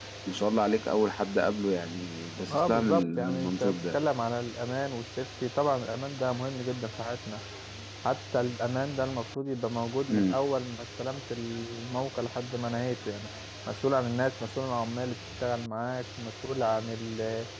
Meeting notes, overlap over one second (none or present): present